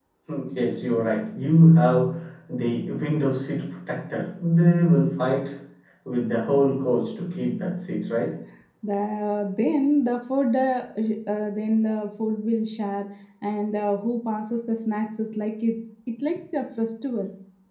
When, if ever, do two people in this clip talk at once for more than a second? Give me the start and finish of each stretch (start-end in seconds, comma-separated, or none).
none